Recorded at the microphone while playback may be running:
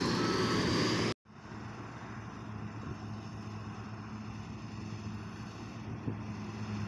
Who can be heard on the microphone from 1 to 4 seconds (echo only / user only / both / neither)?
neither